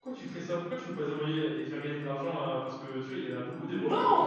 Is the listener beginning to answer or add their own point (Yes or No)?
Yes